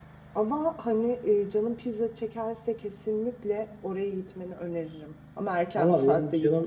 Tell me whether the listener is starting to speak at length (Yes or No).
Yes